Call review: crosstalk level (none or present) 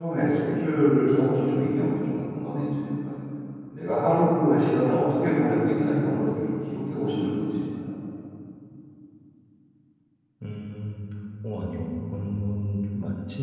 none